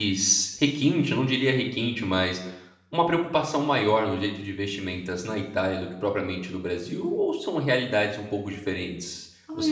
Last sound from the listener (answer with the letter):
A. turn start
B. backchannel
A